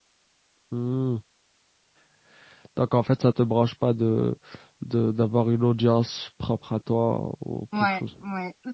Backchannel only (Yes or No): No